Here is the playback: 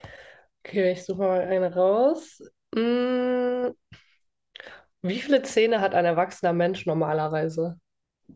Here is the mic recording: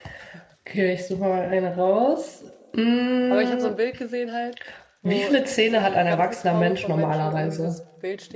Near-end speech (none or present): present